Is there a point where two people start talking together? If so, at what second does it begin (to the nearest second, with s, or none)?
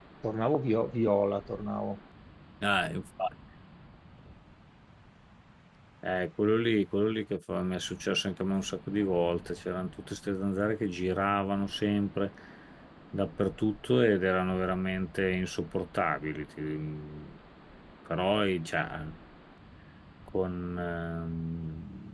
none